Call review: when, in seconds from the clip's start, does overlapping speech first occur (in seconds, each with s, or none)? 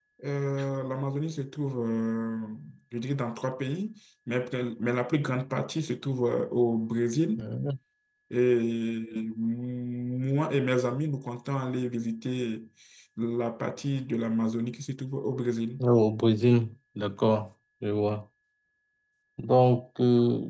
none